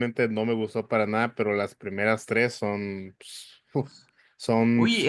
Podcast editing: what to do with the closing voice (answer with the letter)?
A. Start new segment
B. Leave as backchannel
A